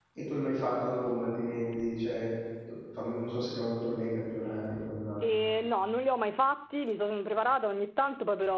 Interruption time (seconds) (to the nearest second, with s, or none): none